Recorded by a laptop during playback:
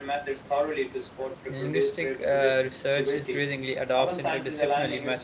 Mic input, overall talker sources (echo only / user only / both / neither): both